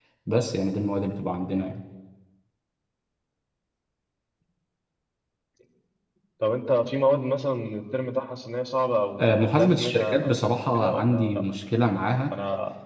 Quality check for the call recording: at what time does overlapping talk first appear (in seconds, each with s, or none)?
9.2 s